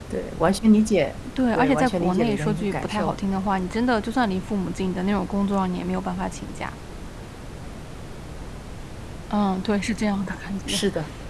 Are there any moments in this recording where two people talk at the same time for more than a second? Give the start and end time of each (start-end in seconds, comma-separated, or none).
1.5-3.2